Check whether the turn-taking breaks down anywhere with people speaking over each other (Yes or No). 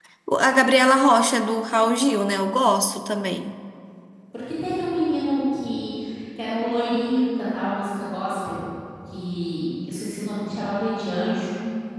No